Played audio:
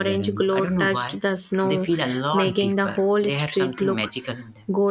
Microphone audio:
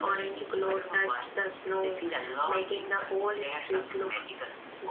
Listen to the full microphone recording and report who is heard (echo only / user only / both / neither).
echo only